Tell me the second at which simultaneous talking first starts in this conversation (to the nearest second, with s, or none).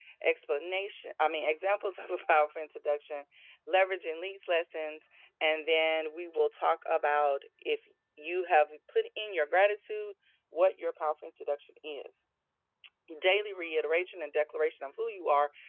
none